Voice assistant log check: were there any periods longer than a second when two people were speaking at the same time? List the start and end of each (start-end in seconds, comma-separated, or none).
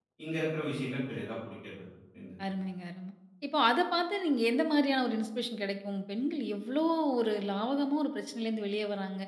none